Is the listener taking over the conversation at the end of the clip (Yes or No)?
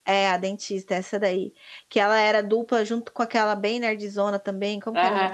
Yes